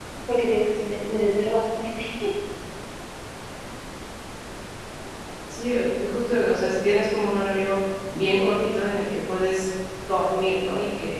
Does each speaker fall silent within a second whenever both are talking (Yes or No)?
Yes